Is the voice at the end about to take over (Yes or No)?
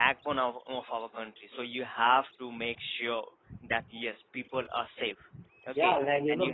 Yes